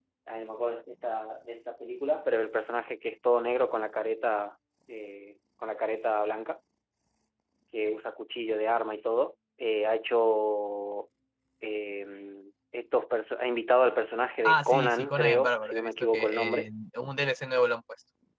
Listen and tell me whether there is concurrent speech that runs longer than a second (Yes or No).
Yes